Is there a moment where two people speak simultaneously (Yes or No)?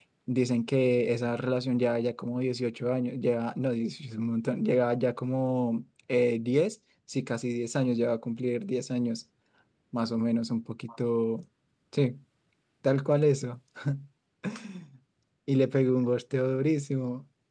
No